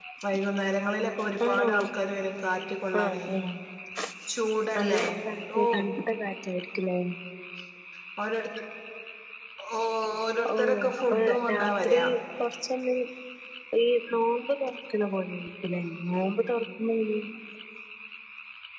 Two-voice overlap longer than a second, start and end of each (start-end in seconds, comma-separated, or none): 10.6-12.0